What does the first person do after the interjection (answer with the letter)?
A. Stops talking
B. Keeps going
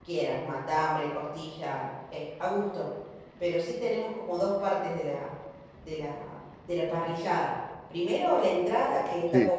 B